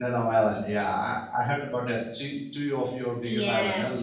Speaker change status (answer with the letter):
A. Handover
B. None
A